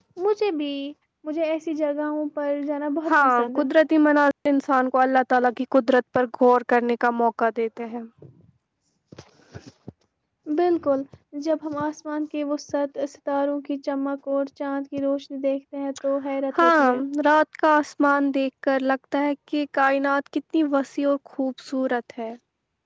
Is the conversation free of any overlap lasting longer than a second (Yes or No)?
Yes